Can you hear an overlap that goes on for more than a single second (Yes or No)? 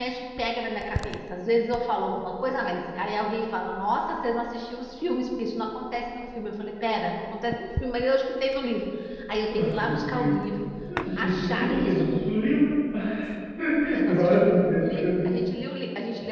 Yes